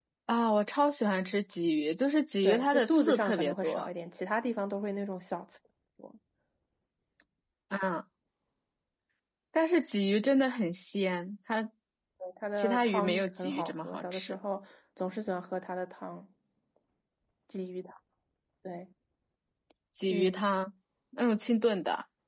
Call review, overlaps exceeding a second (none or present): present